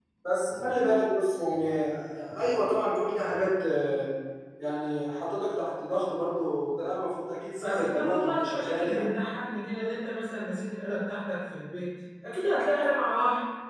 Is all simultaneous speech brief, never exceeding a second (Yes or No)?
No